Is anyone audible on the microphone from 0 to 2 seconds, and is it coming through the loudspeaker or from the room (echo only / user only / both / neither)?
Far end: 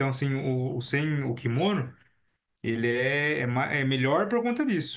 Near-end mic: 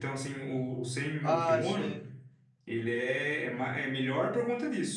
both